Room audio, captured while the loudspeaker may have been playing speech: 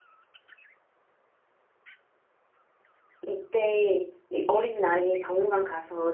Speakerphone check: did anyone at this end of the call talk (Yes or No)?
Yes